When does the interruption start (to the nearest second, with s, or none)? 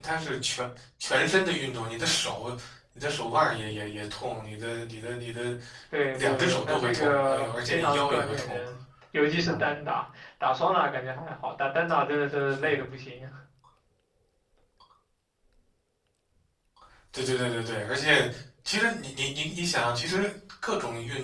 6 s